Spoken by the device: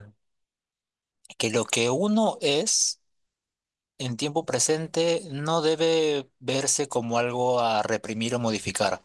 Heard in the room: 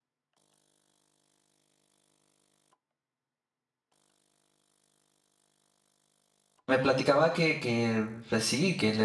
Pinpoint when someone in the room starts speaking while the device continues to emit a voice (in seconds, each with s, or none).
6.7 s